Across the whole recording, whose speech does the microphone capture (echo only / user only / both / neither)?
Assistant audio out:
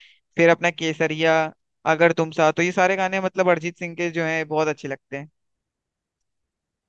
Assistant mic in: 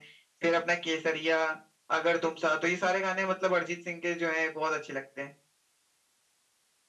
echo only